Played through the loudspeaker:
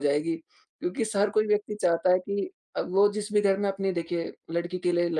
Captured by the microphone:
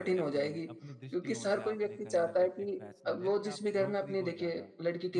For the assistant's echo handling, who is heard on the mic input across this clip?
both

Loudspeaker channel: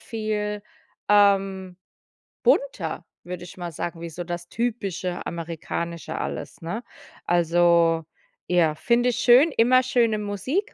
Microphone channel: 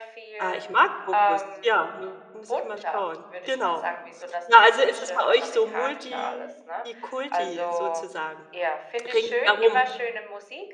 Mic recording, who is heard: both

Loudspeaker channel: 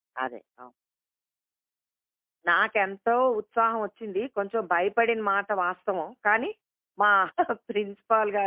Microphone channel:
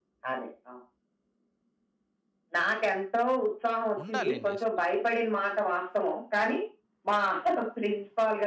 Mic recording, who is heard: both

